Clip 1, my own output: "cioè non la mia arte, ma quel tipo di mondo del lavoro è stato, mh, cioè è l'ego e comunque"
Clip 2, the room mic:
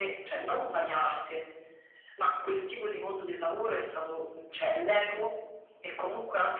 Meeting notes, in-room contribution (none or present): none